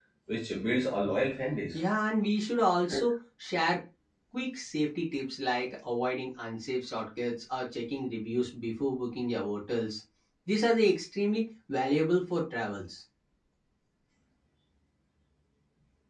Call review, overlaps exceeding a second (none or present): none